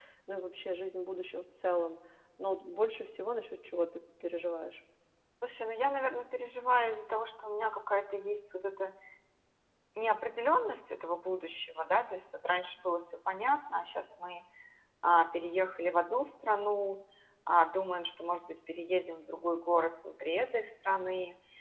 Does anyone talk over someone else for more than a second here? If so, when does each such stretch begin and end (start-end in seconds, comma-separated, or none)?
none